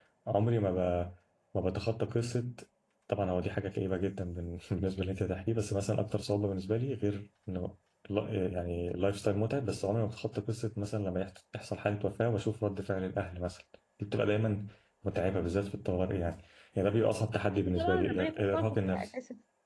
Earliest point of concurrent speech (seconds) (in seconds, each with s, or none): 17.6 s